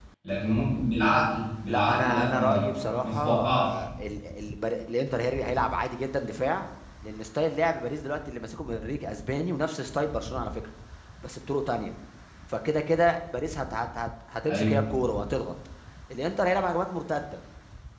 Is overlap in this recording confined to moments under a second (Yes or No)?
No